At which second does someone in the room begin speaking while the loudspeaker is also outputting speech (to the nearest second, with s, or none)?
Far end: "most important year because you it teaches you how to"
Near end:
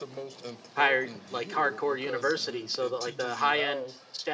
1 s